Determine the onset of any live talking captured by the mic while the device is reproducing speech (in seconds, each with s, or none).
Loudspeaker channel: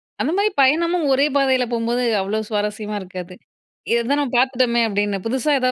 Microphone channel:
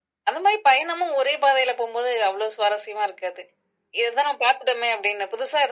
none